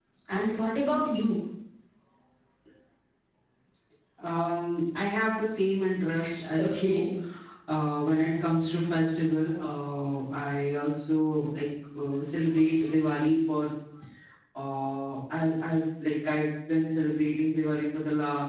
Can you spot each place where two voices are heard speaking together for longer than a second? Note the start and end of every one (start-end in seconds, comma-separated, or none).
none